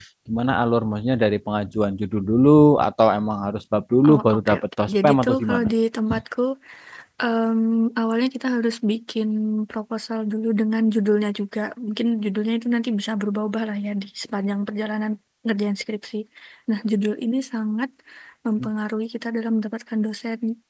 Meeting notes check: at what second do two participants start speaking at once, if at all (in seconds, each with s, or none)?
4.0 s